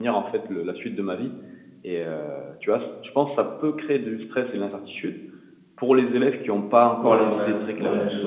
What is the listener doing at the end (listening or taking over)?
taking over